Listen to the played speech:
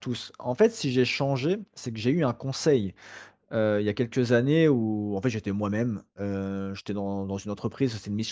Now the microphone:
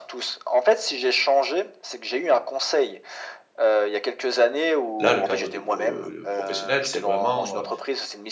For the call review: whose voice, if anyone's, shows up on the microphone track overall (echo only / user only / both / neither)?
both